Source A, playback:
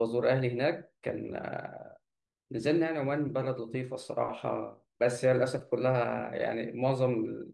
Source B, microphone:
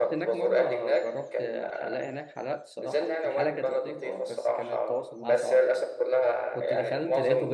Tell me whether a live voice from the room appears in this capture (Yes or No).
Yes